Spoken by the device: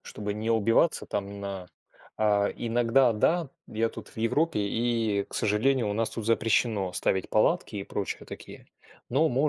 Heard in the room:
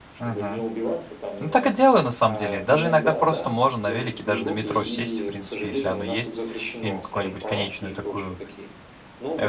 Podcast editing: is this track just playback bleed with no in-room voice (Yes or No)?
No